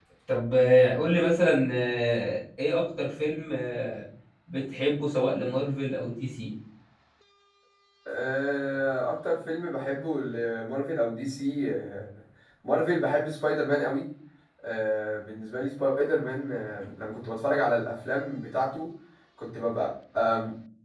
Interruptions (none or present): none